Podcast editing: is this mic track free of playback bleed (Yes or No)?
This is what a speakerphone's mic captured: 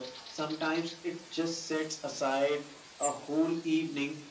No